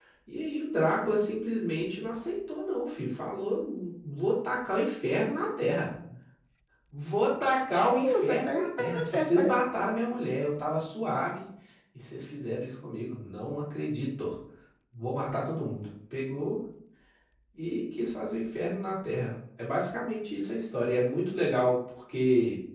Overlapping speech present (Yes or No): Yes